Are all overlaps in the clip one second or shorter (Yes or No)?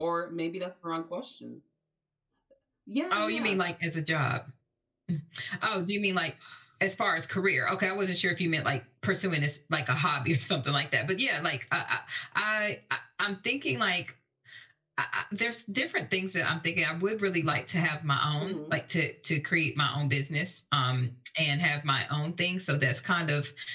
Yes